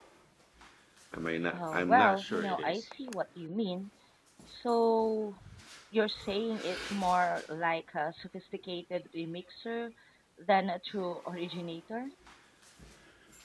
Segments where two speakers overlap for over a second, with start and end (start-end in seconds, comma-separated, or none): 1.5-2.9